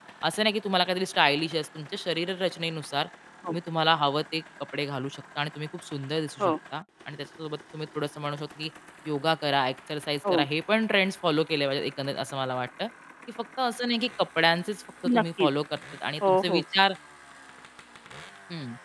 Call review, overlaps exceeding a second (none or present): none